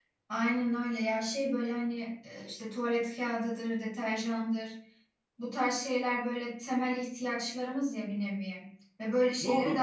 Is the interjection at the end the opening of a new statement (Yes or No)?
No